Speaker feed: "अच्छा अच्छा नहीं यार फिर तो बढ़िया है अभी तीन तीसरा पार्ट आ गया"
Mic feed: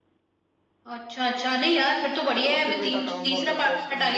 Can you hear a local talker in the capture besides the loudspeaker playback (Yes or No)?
Yes